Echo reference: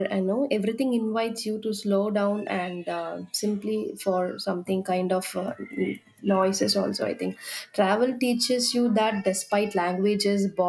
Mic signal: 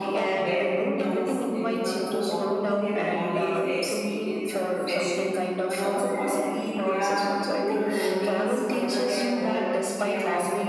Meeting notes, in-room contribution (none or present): present